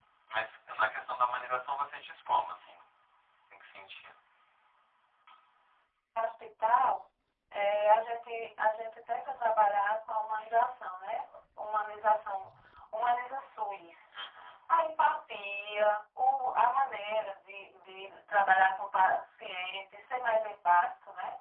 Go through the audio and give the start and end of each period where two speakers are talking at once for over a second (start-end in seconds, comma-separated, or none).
none